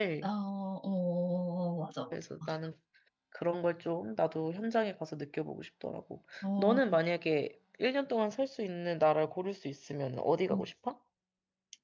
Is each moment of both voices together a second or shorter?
Yes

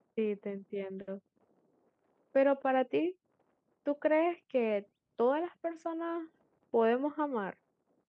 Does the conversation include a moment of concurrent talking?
No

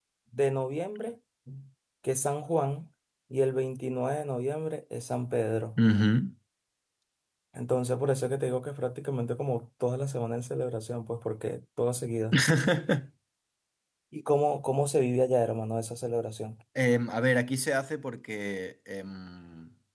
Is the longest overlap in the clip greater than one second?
No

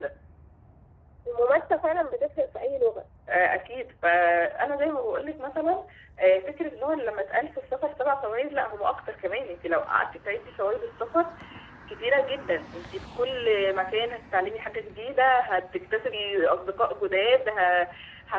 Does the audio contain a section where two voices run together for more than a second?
No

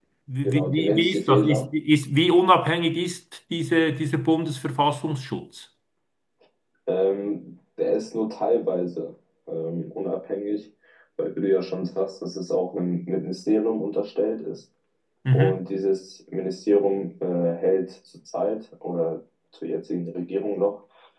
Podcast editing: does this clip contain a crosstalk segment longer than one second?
Yes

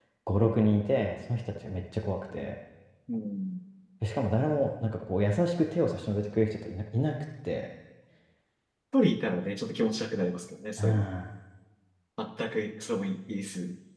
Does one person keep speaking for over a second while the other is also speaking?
No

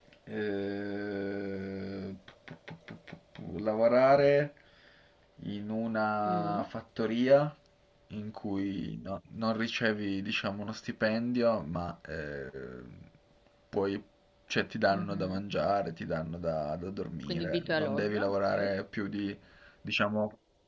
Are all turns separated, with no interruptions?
No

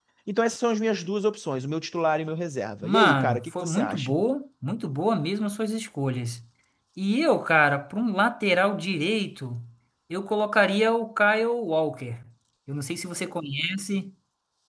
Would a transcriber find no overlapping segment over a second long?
No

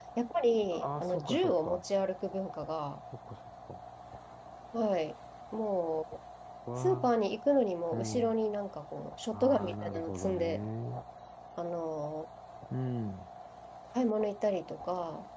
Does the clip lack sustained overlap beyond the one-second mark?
No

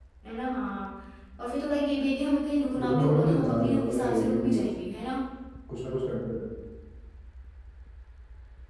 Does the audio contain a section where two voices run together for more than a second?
Yes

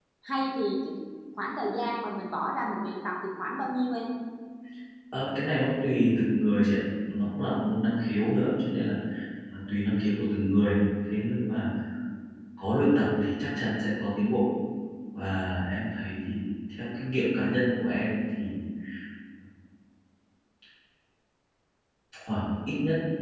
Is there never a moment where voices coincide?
Yes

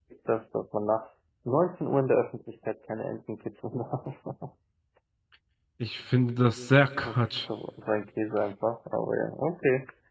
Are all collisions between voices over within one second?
Yes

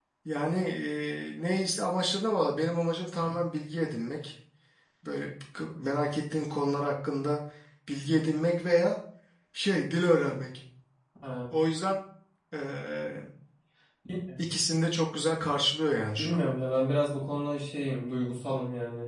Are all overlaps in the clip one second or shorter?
Yes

